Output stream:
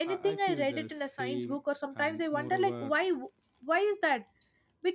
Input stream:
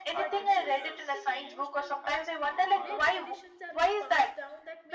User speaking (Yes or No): Yes